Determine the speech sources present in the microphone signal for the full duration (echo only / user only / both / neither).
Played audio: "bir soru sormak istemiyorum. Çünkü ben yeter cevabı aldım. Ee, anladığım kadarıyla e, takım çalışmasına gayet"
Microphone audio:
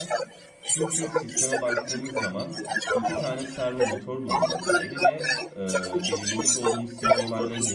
both